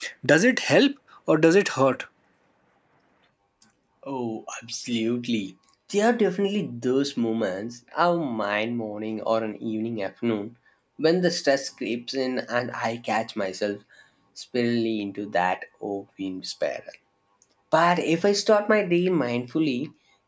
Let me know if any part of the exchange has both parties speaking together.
No

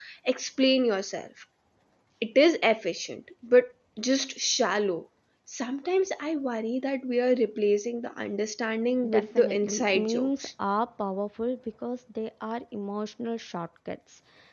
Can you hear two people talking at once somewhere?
Yes, from 9.0 s

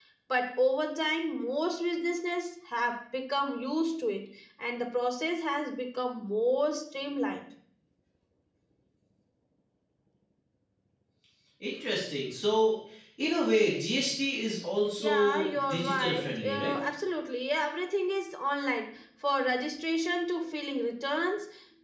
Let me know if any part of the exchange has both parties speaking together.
Yes, from 15.0 s

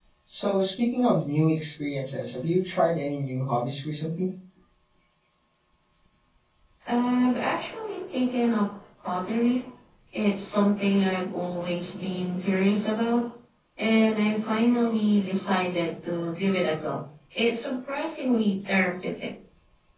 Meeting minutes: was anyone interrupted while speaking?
No

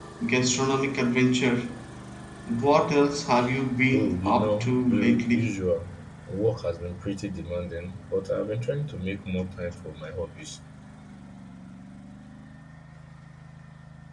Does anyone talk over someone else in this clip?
Yes, from 3.9 s

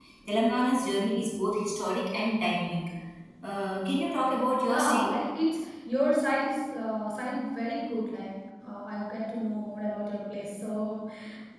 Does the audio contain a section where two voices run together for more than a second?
No

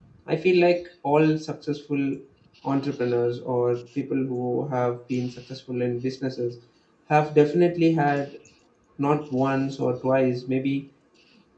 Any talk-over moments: No

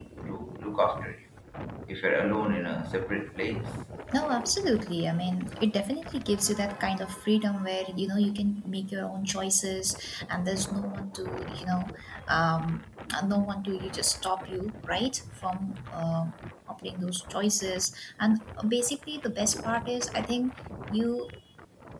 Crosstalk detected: No

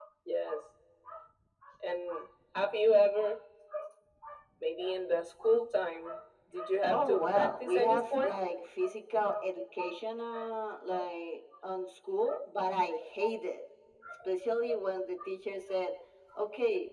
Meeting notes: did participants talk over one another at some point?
Yes, from 6.9 s

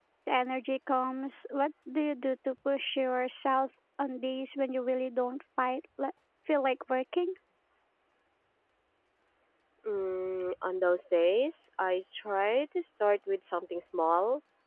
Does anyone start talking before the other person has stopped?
No

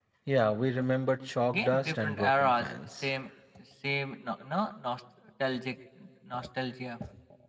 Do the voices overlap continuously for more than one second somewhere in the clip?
Yes, from 1.4 s

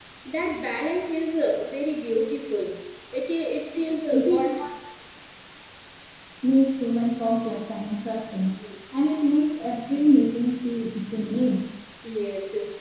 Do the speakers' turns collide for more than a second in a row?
No

